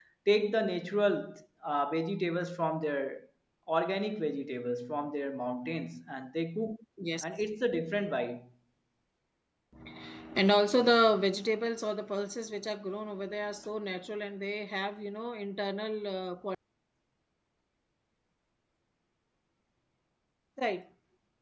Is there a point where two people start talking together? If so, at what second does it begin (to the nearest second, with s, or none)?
none